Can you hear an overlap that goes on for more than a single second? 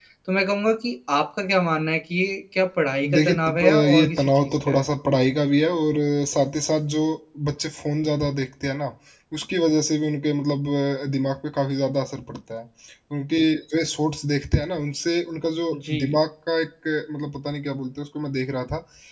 Yes, from 3.1 s

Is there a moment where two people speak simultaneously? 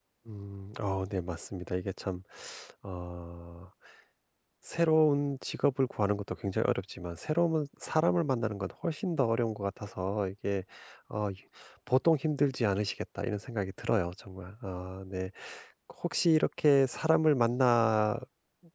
No

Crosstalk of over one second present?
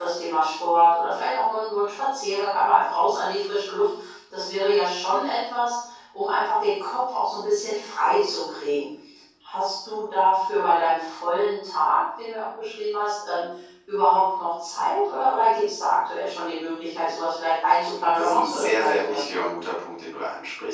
Yes, from 18.1 s

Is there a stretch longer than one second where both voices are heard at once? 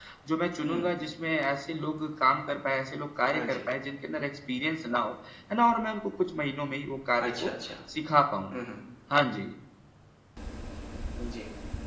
No

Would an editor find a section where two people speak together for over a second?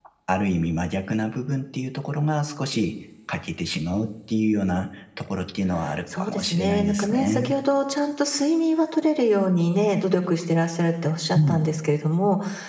Yes, from 6.1 s

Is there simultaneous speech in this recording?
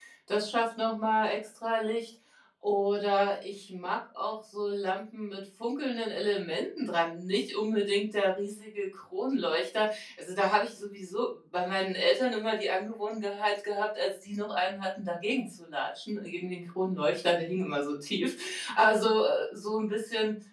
No

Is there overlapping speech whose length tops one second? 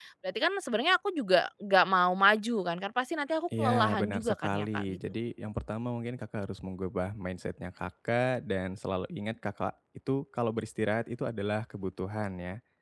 Yes, from 3.5 s

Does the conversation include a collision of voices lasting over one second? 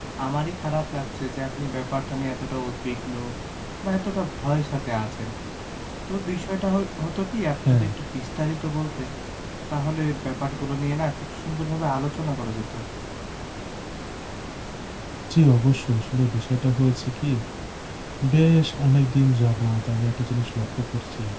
No

